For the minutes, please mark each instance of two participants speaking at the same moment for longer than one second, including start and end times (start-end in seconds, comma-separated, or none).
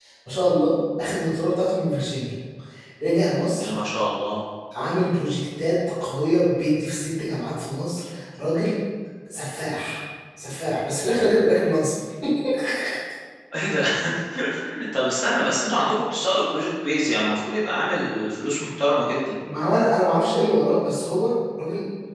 none